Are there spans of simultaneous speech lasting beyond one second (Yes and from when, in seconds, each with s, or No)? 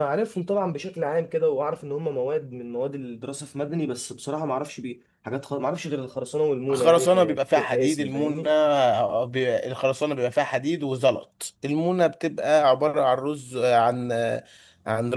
Yes, from 6.7 s